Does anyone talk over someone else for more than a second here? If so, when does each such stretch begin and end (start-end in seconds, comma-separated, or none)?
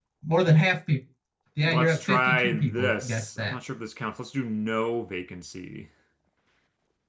1.6-3.5